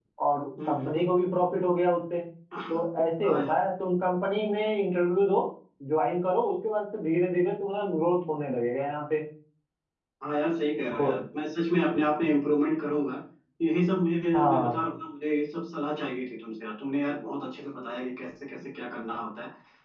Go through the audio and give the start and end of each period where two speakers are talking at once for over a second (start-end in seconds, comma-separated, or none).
none